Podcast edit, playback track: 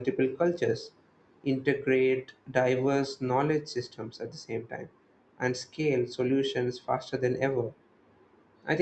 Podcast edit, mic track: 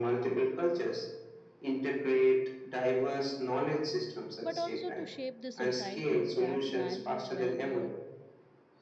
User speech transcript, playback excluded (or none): but also to shape the society that value well-being